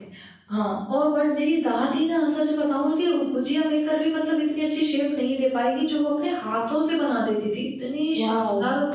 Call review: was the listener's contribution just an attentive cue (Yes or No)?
No